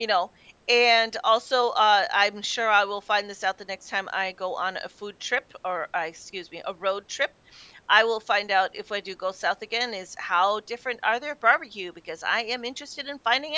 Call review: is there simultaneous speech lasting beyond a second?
No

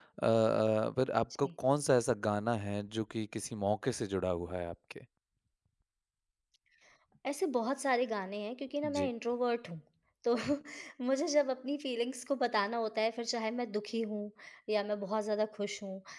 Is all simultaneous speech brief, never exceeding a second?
Yes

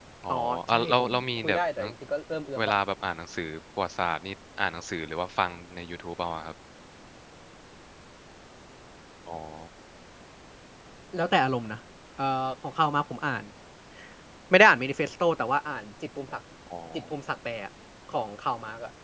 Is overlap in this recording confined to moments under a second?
No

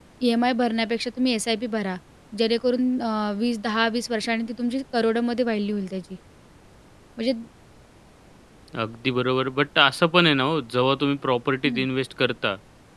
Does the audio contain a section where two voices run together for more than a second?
No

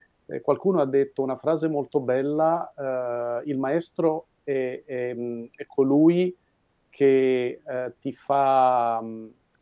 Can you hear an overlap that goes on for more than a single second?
No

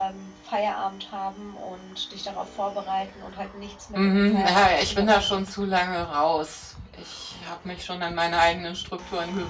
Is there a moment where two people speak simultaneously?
Yes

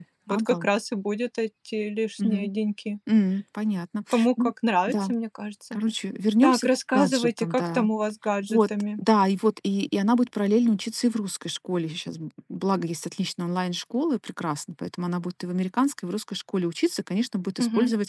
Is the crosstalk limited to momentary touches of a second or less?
No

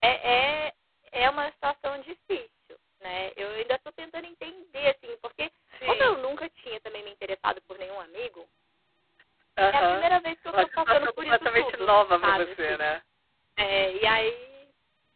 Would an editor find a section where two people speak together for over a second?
Yes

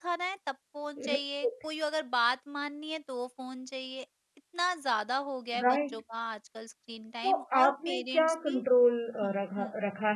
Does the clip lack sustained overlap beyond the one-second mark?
No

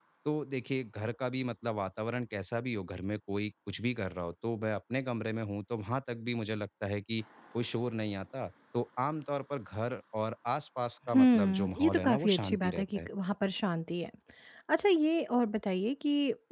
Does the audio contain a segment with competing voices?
Yes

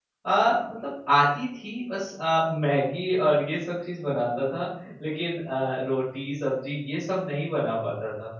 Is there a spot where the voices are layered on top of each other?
No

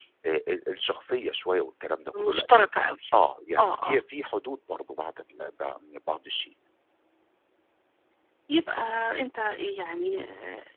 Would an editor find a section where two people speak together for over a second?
No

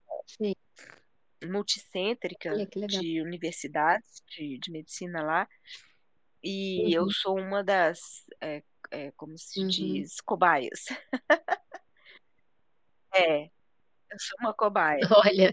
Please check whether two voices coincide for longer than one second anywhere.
No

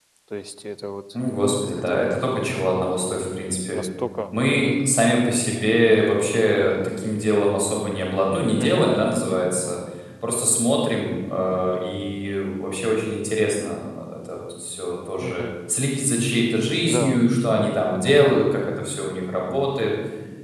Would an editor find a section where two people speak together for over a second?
No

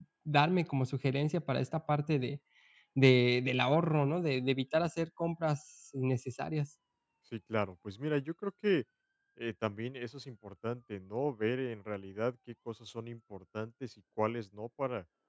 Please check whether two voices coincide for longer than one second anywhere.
No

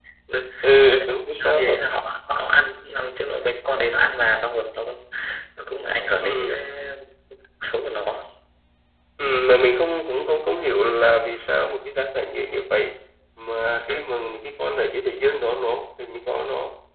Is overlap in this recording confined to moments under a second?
Yes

